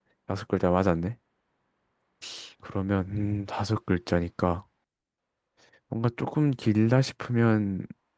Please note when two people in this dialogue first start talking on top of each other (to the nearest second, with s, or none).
none